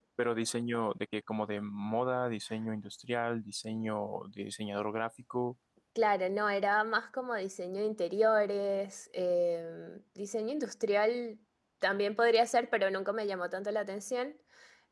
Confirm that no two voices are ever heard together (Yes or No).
Yes